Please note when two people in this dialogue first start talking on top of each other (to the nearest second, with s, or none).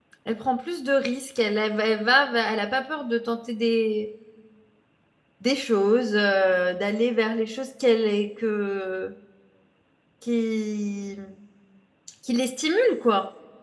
none